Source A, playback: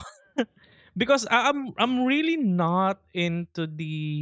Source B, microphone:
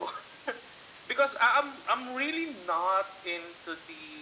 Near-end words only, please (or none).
none